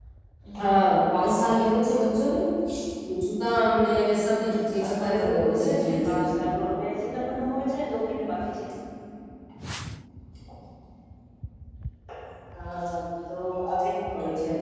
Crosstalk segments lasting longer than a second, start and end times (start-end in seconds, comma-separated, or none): 4.4-6.2